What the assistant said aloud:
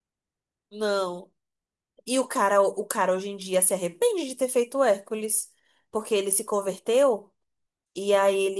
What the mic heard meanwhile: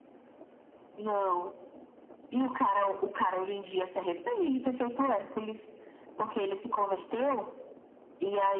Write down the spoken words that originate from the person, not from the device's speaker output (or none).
none